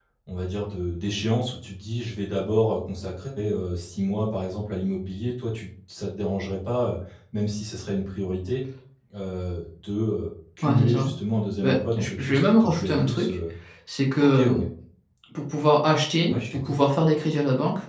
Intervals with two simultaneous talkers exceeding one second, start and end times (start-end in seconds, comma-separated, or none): 11.6-13.4